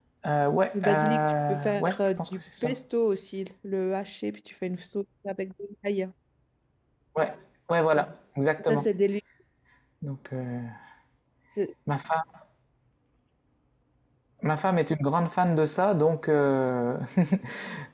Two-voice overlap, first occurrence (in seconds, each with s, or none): 0.7 s